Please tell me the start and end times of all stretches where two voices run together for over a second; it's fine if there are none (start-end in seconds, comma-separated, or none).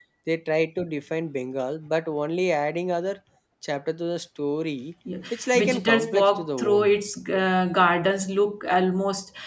5.3-6.9